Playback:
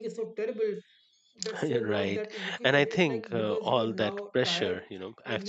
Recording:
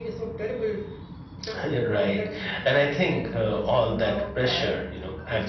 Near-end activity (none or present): none